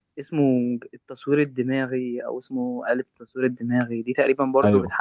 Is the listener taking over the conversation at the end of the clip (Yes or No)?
No